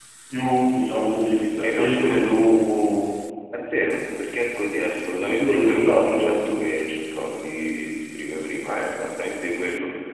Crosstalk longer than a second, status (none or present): present